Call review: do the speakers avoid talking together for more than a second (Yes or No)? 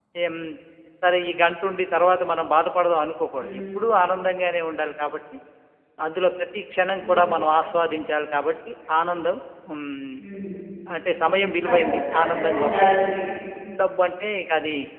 No